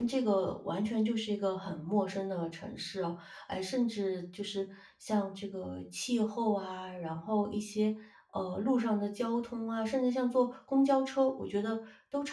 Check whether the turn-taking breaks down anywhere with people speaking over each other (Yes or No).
No